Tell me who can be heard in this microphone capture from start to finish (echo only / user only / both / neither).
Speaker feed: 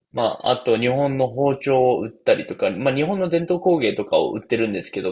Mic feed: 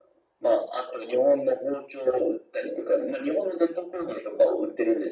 echo only